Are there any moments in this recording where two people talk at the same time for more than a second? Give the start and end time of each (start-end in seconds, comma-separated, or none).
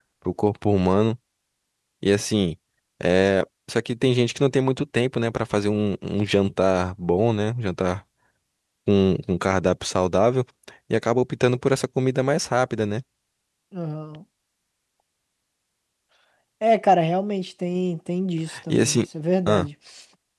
none